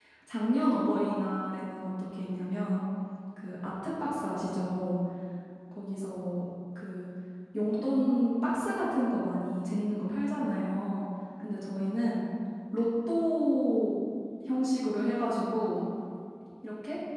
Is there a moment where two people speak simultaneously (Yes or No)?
No